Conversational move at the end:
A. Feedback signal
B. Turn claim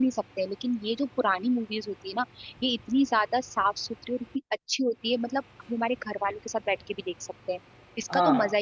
B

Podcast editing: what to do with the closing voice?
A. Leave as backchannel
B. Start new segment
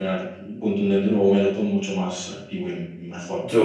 B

